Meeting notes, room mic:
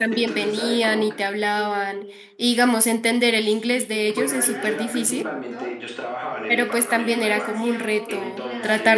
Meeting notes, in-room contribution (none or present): present